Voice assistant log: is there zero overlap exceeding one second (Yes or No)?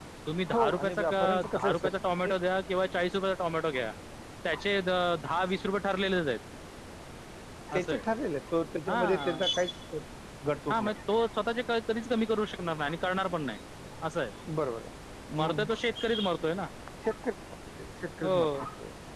No